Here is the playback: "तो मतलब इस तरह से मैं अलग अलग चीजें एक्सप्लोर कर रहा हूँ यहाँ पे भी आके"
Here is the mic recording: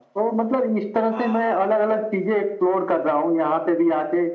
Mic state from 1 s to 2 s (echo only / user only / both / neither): both